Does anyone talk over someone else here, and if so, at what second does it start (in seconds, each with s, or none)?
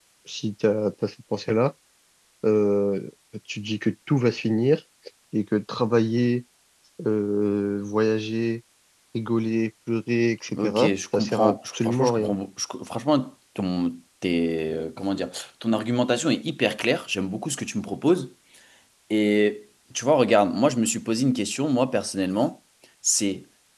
10.5 s